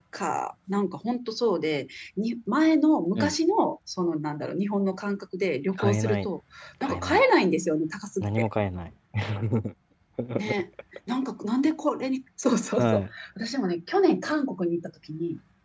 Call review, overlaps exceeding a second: none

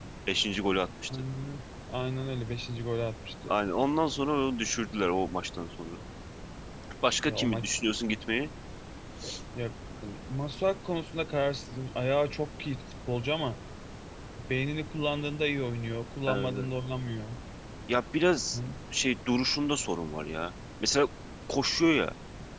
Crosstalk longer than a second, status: none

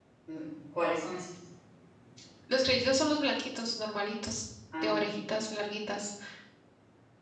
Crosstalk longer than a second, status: none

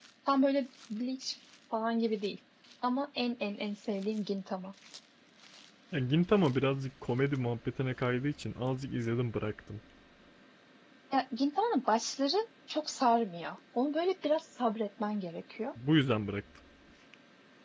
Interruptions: none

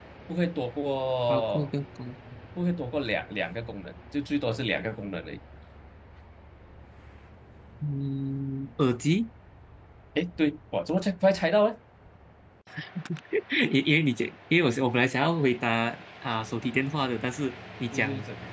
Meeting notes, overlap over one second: none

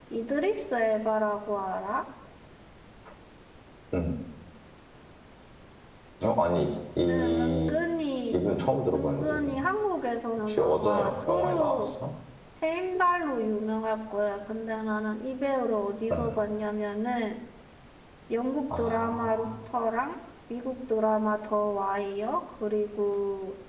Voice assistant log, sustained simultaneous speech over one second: present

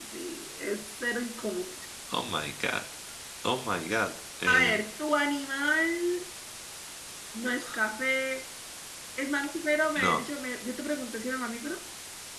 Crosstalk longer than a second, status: none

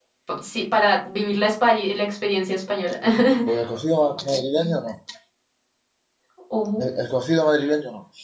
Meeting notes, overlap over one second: none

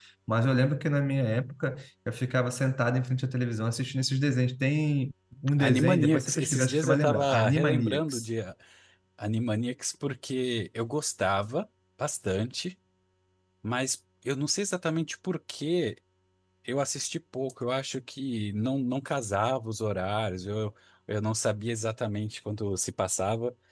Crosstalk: present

